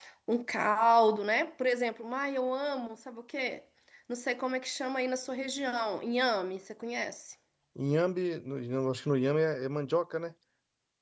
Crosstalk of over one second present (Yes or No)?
No